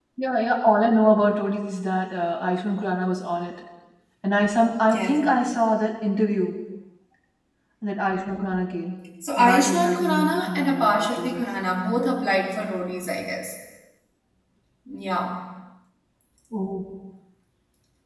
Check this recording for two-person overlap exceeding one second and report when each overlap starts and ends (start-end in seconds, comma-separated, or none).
9.4-11.4